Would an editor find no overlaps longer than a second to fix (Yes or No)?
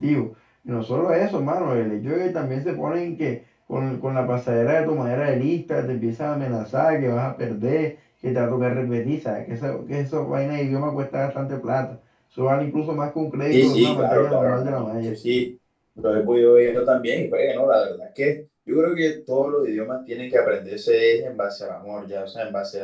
No